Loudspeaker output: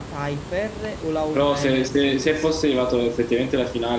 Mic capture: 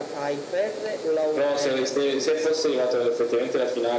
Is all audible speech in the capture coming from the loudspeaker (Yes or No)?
Yes